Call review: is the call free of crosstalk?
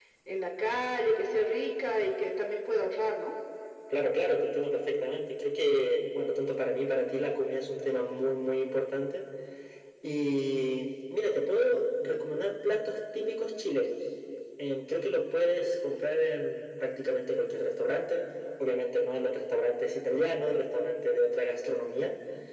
Yes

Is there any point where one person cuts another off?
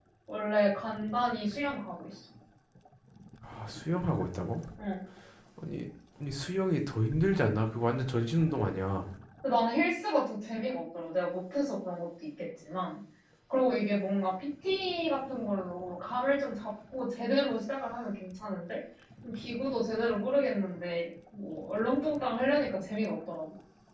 No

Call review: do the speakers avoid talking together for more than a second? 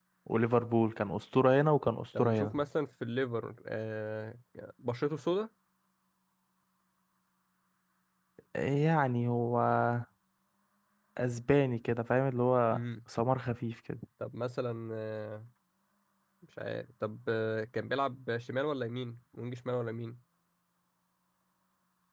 Yes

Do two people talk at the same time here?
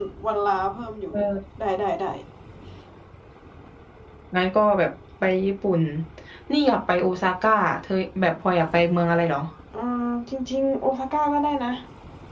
No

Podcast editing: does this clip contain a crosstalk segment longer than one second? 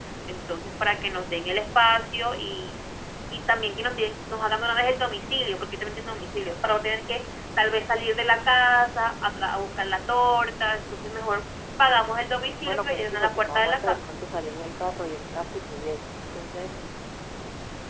Yes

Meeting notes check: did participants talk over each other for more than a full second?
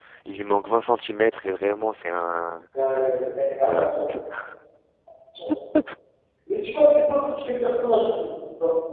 No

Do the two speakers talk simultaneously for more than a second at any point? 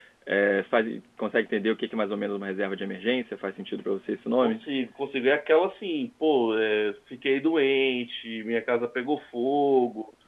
No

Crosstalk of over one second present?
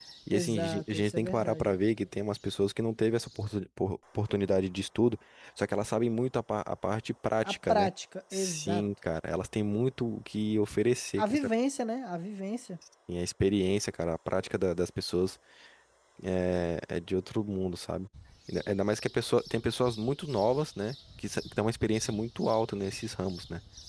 Yes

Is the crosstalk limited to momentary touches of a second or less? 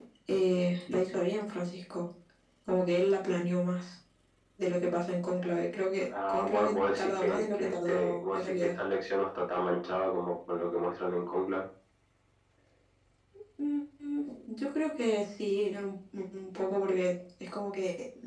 No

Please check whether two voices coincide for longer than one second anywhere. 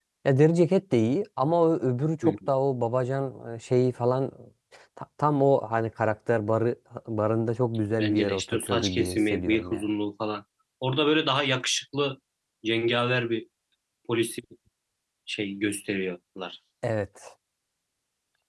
Yes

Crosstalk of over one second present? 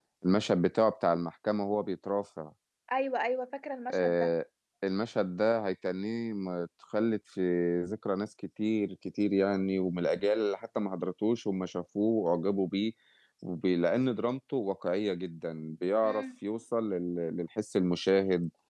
No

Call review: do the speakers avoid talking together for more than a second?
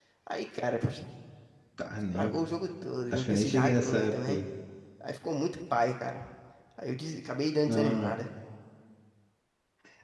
No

